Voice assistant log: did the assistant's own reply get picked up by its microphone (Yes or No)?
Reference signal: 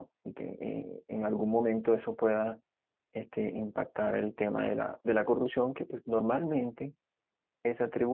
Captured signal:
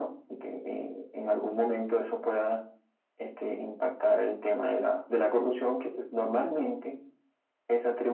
Yes